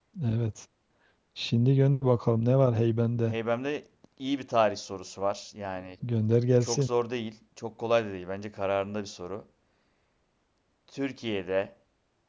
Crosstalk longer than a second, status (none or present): none